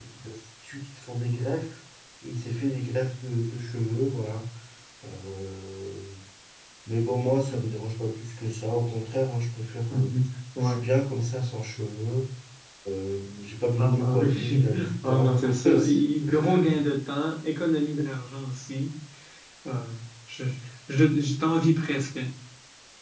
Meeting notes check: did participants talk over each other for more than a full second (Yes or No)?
Yes